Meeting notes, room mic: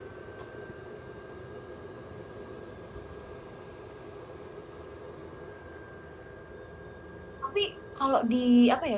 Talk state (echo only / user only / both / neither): user only